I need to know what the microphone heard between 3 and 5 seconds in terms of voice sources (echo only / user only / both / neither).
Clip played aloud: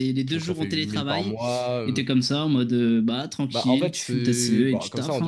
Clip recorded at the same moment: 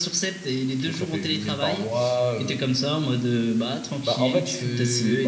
echo only